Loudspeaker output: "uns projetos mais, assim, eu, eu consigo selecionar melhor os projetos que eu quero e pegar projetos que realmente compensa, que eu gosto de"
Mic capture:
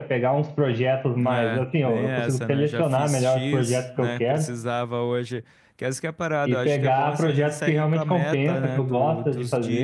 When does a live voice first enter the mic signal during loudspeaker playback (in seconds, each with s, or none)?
1.2 s